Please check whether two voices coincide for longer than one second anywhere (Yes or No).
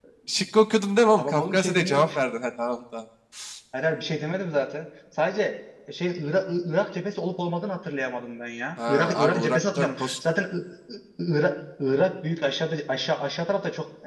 Yes